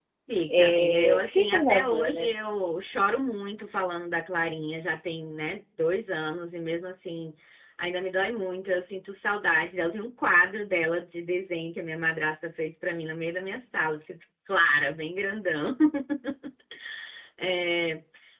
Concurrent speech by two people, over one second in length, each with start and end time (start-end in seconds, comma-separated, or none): 0.6-2.3